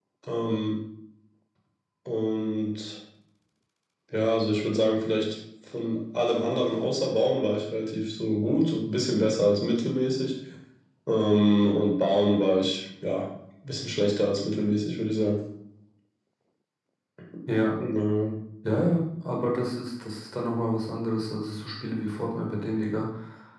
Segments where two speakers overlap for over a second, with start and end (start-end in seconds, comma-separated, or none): none